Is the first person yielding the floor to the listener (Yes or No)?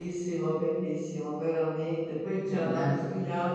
No